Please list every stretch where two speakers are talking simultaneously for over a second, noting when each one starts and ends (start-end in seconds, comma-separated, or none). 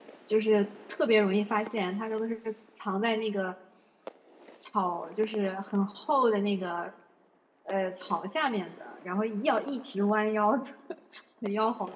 none